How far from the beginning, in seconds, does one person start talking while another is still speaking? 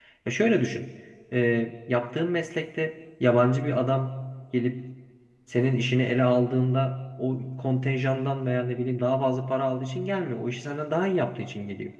none

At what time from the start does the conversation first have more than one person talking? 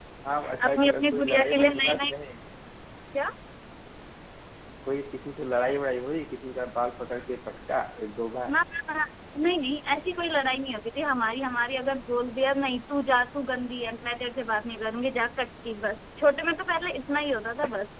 0.7 s

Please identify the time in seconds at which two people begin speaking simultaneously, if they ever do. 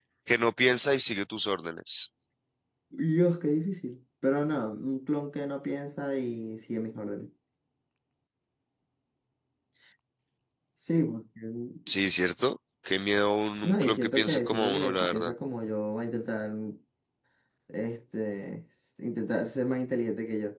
13.6 s

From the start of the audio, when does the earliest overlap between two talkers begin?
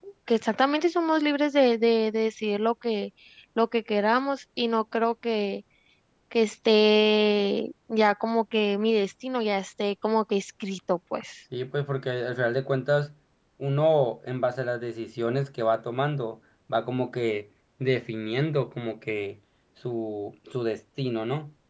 none

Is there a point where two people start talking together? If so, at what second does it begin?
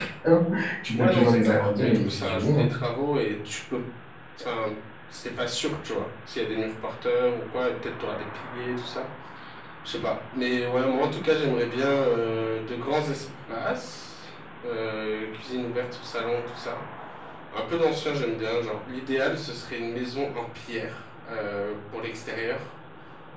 0.9 s

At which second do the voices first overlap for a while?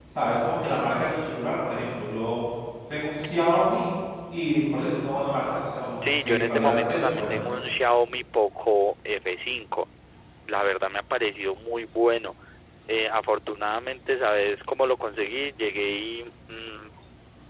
6.0 s

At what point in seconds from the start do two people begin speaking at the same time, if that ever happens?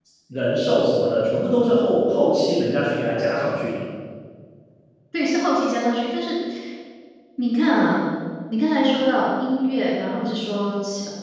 none

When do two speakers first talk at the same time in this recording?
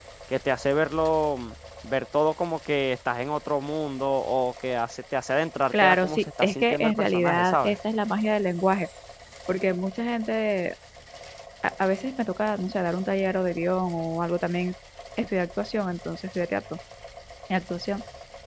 5.7 s

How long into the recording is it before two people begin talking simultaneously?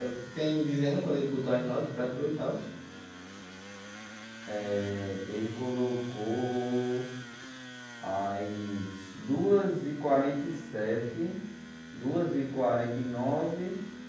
none

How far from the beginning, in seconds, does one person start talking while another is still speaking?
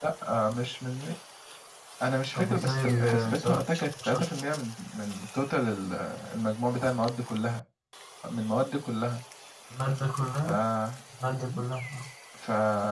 2.4 s

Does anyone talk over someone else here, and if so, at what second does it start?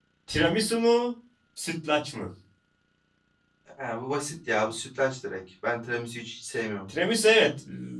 none

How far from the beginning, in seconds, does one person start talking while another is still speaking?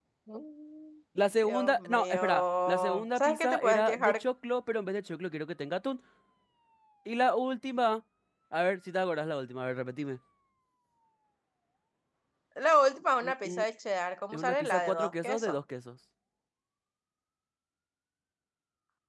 1.4 s

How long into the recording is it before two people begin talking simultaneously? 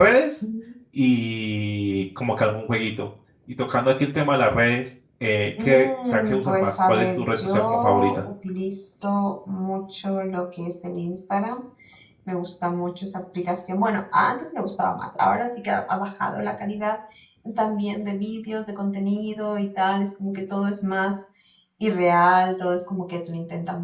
5.6 s

